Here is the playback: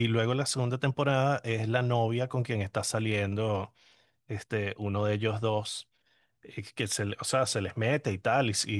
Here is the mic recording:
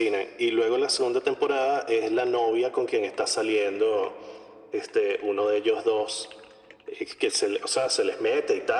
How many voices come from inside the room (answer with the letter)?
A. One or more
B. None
B